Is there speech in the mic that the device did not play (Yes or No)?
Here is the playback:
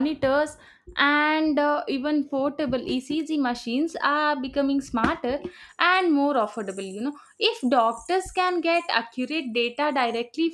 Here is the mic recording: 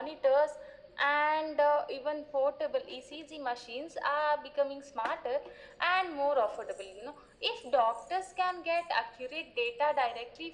No